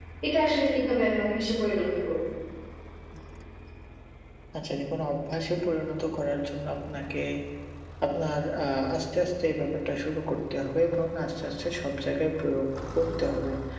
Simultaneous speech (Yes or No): No